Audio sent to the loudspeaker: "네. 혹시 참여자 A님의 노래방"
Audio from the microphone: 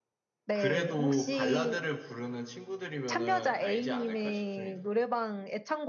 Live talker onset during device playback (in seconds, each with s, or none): 0.5 s